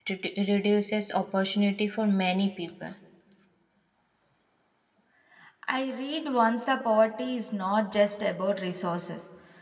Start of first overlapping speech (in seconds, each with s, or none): none